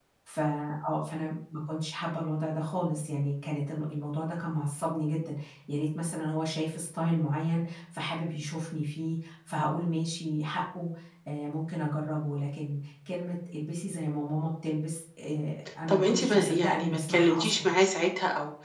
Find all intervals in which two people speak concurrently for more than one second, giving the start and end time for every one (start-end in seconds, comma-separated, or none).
15.9-17.7